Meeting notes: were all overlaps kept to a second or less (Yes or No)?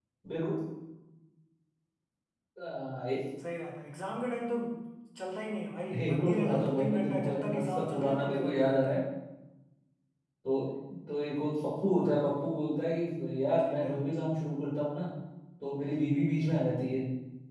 No